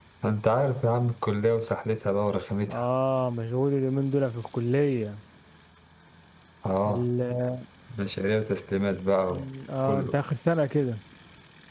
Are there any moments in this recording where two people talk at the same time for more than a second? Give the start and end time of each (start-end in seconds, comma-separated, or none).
none